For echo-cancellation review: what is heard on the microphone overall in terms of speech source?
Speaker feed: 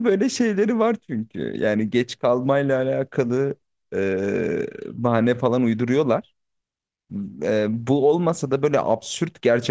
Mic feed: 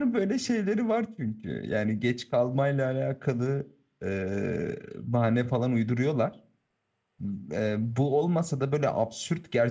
echo only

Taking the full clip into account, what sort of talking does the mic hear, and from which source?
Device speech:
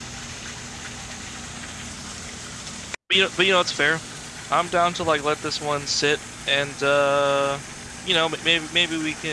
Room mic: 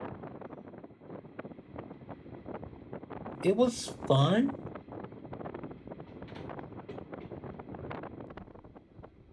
user only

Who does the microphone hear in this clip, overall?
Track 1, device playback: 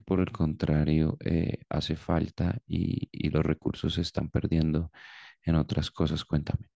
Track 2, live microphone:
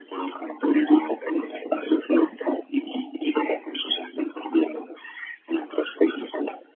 echo only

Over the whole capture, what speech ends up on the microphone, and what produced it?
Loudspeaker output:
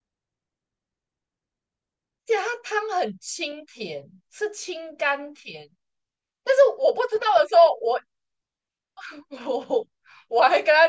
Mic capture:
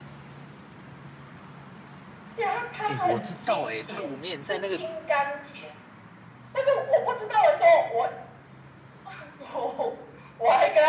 both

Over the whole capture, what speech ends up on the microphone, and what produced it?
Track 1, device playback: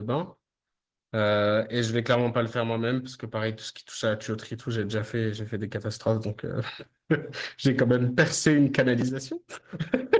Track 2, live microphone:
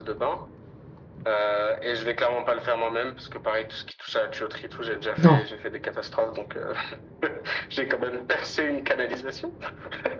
both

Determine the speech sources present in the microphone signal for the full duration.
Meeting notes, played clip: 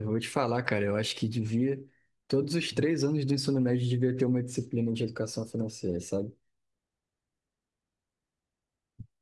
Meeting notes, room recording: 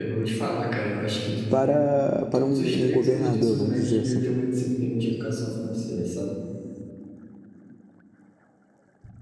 both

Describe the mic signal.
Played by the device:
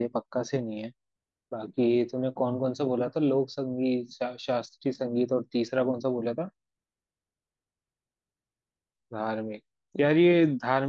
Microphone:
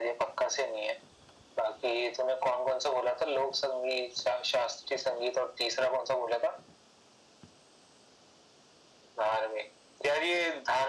echo only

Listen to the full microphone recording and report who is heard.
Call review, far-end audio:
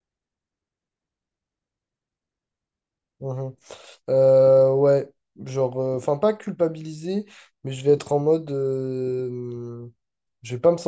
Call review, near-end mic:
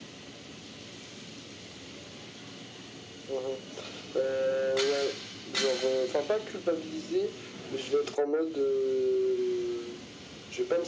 echo only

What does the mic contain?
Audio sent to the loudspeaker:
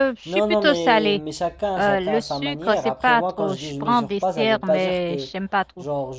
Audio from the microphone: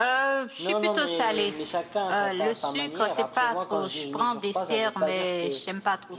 echo only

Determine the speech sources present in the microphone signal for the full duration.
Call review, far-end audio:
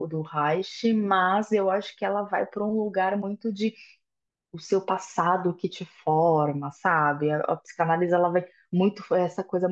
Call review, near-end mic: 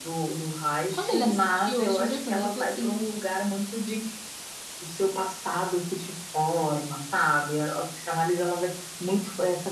both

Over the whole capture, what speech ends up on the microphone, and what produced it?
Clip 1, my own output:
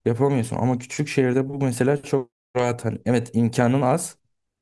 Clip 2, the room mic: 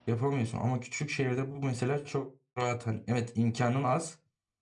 echo only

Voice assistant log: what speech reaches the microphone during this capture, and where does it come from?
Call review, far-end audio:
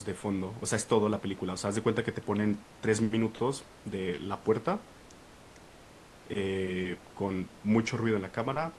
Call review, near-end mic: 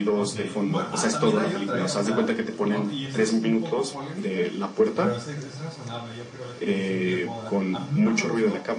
both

